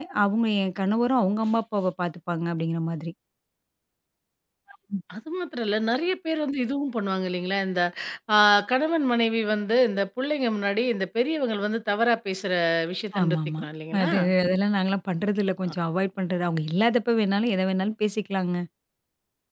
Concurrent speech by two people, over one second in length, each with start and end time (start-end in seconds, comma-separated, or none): none